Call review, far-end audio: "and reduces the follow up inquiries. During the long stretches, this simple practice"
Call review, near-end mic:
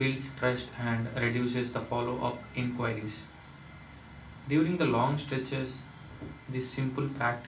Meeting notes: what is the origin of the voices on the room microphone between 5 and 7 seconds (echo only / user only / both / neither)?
echo only